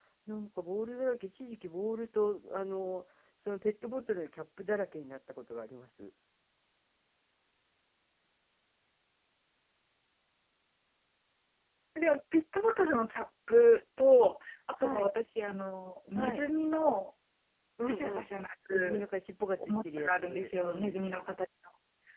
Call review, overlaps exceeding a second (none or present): present